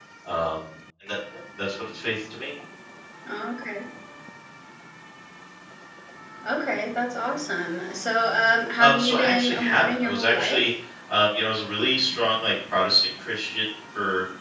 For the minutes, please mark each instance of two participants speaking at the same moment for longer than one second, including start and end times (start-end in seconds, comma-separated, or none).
8.8-10.6